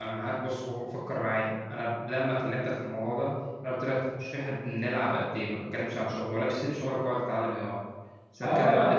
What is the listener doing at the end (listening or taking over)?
taking over